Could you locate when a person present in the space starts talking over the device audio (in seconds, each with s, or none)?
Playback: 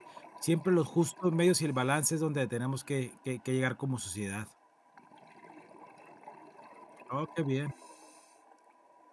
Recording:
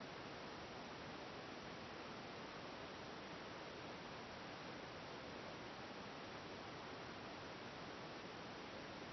none